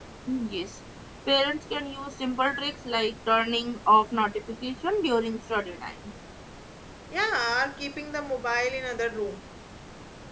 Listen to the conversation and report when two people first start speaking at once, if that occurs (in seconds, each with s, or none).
none